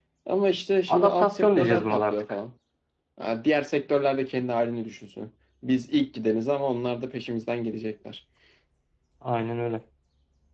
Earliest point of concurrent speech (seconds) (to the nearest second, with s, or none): 1 s